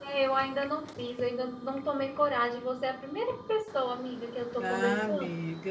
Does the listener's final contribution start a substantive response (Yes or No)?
Yes